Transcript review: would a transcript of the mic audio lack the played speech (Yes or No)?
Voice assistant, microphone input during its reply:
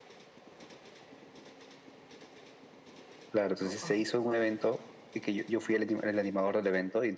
No